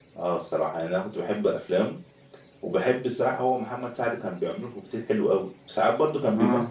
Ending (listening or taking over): listening